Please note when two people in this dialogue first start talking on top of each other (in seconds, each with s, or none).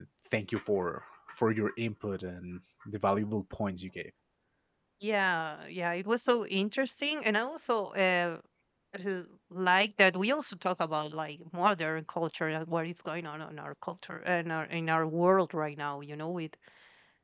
none